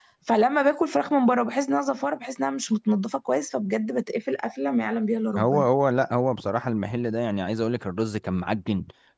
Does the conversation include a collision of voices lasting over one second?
No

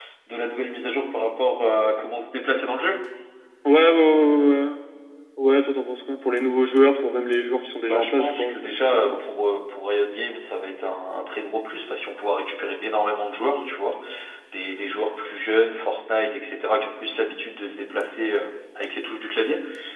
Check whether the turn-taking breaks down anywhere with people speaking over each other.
Yes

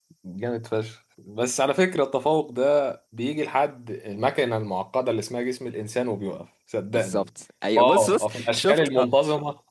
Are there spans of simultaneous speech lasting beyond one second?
Yes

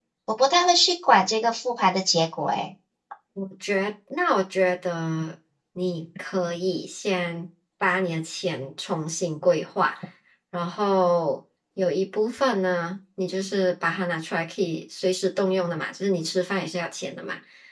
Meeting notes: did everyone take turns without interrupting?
Yes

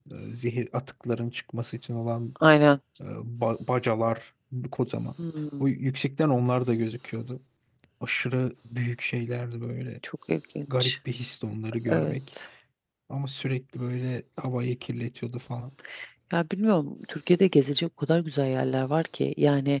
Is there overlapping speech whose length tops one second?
No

